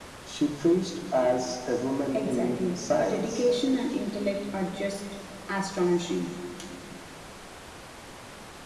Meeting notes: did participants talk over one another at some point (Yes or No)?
Yes